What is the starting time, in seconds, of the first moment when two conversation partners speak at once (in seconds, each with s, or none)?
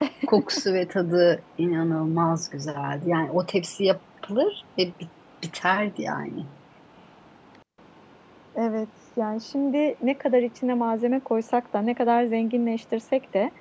none